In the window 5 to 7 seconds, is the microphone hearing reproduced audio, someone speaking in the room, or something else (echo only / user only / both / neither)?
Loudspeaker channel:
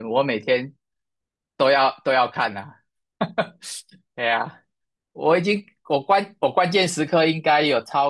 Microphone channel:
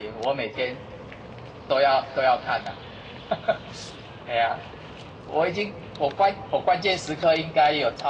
echo only